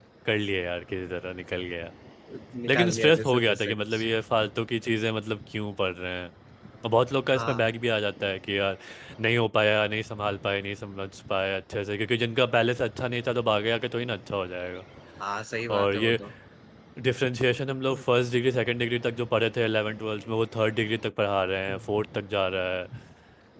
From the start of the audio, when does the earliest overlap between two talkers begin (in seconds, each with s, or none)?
2.7 s